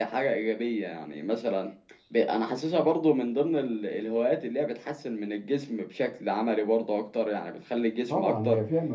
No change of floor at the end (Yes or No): No